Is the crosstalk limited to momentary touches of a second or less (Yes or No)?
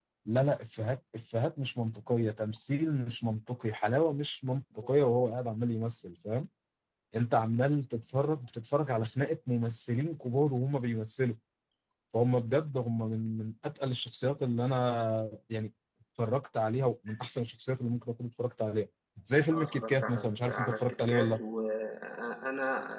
No